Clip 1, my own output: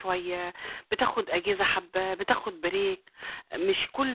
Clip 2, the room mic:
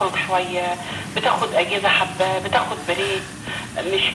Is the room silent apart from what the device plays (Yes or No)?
Yes